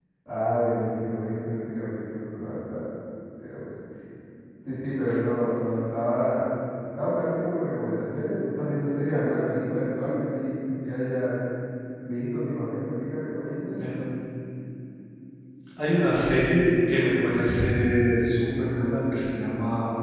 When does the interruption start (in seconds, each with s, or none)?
none